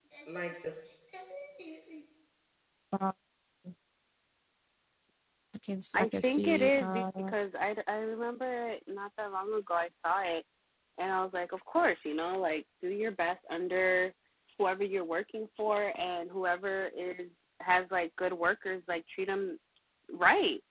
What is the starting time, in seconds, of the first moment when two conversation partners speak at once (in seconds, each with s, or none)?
5.9 s